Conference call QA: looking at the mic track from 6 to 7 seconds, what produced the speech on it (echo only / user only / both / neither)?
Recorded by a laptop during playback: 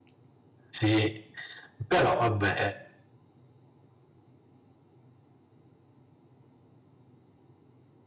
neither